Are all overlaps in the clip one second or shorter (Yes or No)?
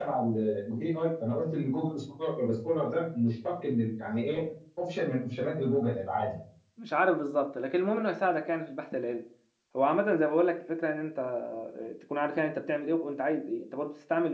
Yes